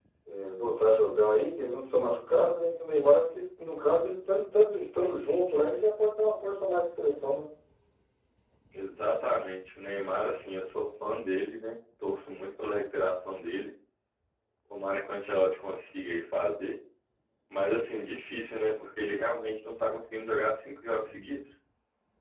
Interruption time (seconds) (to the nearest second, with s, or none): none